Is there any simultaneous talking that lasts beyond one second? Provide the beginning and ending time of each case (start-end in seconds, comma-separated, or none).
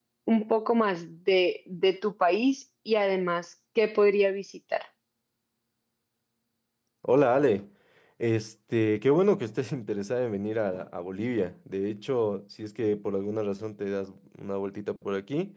none